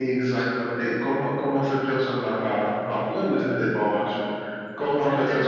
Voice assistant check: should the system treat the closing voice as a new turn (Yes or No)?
No